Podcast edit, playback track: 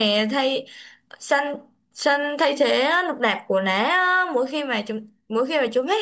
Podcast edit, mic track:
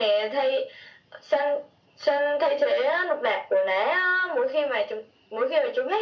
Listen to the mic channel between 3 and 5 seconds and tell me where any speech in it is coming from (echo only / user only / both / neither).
echo only